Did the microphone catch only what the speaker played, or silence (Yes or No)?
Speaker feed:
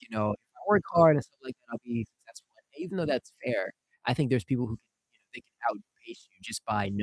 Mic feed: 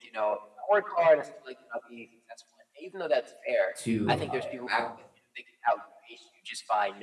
No